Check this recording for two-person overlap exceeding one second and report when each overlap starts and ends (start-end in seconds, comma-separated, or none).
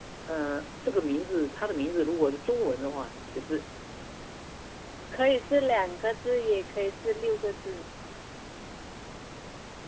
none